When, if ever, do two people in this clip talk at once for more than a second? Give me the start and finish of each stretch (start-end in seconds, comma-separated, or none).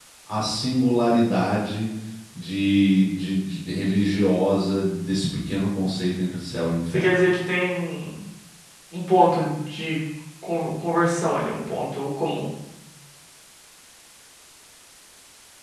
none